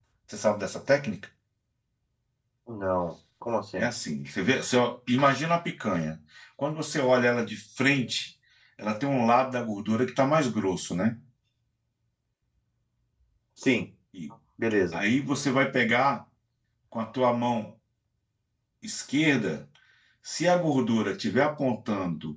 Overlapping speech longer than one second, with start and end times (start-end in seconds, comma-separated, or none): none